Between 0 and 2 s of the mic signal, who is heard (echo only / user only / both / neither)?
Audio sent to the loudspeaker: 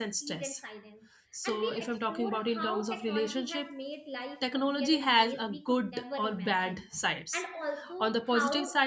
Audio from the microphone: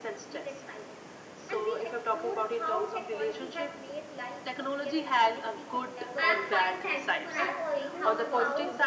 echo only